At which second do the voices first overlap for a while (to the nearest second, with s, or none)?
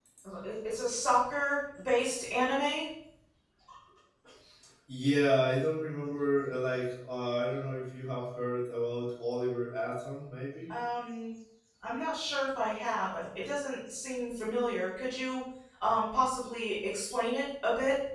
none